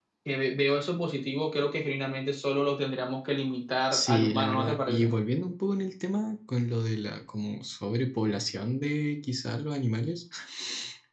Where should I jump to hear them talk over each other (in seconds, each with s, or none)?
3.9 s